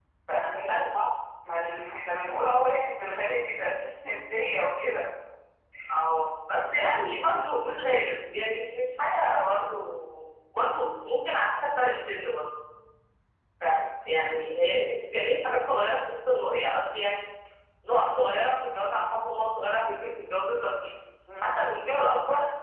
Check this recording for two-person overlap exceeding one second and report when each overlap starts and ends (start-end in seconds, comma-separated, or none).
none